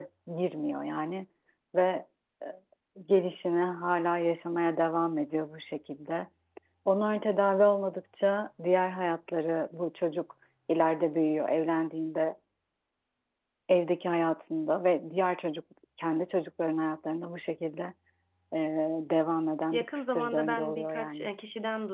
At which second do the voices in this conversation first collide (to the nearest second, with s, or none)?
20 s